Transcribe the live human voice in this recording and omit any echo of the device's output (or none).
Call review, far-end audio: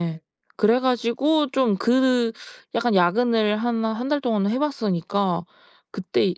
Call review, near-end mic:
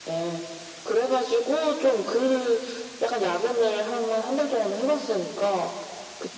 none